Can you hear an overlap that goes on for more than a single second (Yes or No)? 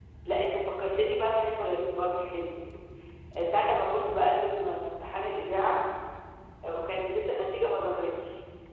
No